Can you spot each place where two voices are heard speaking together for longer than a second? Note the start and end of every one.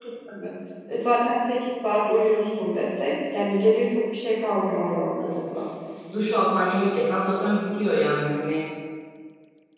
none

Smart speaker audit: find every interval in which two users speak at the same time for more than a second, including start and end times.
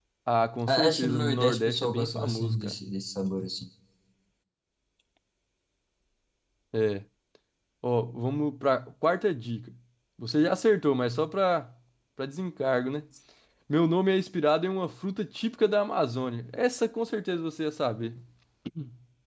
0.7-2.8

